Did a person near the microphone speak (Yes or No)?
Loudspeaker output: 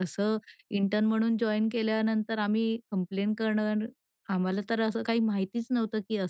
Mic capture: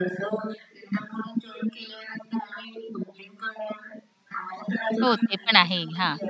Yes